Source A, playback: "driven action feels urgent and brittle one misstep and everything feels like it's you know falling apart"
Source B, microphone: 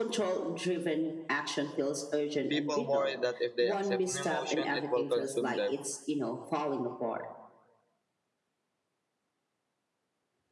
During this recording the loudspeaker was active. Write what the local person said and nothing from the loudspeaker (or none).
People worry that if they accept an emotion, it will consume them.